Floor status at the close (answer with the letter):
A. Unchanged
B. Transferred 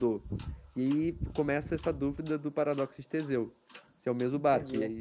B